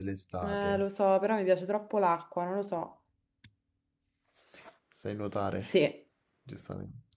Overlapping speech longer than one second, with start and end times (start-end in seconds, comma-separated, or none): none